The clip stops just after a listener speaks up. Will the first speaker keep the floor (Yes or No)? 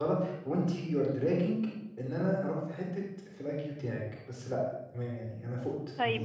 No